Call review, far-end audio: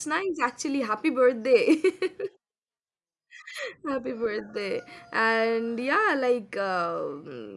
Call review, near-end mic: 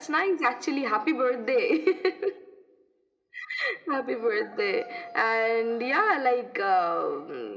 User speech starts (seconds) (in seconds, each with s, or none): none